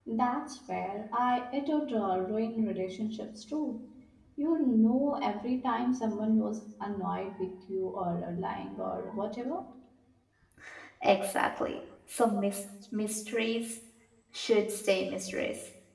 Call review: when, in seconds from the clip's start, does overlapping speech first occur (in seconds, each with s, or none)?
none